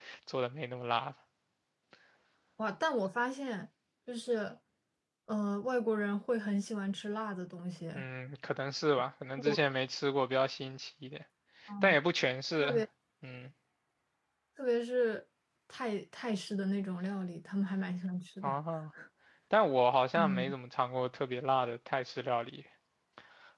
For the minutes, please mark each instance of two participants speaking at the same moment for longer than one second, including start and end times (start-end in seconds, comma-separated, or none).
none